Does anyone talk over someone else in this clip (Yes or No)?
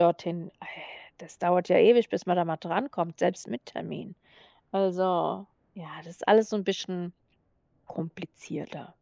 No